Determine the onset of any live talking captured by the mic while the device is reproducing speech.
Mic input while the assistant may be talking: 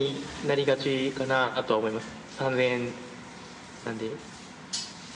none

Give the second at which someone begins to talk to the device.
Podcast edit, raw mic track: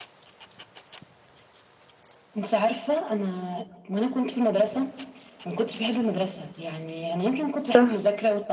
7.6 s

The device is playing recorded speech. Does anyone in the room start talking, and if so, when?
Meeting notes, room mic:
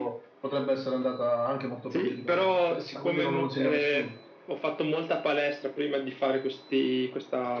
none

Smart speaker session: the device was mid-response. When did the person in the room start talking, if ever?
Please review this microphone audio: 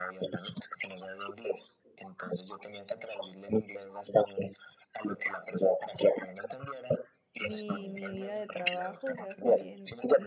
7.4 s

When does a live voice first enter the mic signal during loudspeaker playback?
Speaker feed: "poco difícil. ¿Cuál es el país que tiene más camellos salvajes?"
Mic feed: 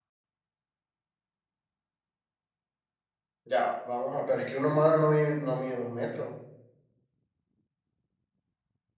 3.4 s

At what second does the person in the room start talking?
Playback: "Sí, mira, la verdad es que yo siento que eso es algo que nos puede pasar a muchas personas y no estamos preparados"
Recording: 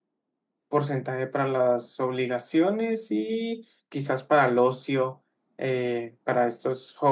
0.7 s

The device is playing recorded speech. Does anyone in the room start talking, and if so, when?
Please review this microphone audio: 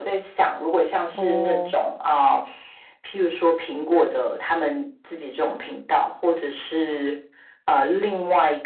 1.1 s

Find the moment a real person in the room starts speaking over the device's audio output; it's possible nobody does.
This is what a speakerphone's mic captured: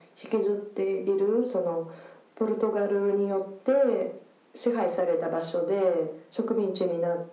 none

